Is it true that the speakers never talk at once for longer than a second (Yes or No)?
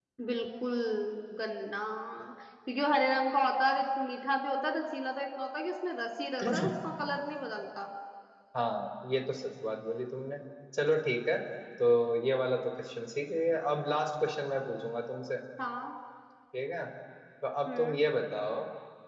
Yes